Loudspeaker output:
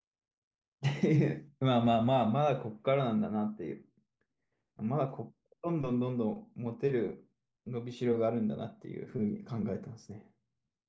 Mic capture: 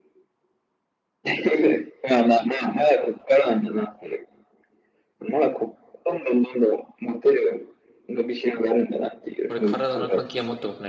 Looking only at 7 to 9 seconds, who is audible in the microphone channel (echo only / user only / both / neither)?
echo only